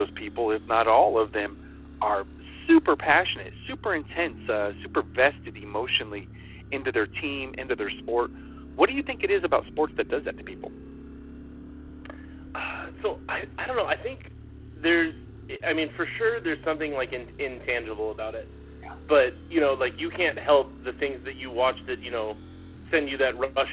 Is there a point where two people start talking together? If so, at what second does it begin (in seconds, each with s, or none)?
none